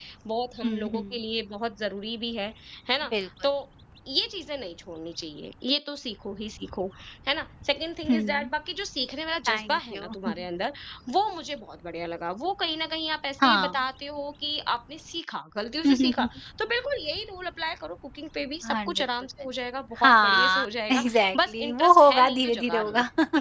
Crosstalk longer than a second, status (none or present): present